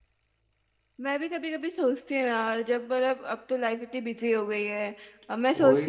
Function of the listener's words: listening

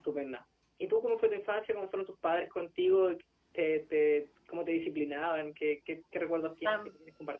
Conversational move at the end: taking over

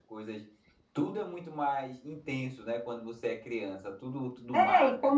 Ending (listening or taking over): taking over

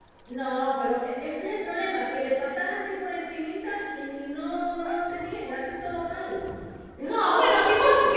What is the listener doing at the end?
taking over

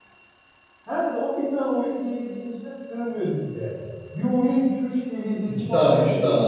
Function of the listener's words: taking over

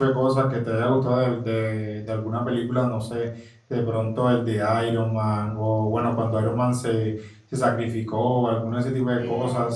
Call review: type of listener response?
listening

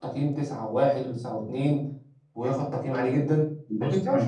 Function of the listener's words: taking over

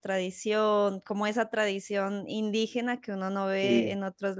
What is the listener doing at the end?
listening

